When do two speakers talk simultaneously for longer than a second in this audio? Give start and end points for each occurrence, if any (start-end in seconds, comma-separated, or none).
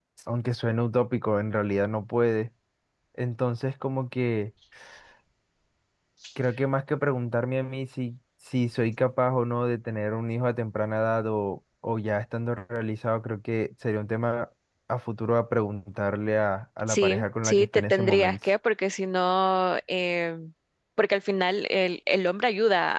16.9-18.4